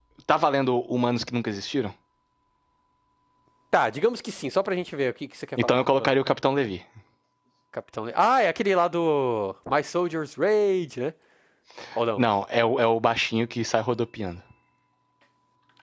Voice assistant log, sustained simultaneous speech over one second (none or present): none